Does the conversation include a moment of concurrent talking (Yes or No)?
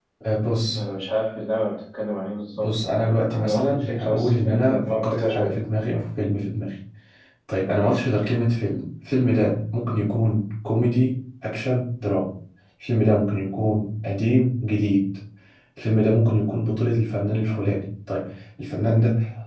Yes